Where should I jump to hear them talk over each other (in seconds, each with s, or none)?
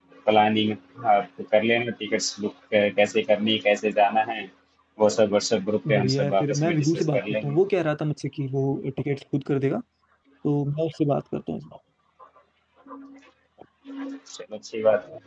5.8 s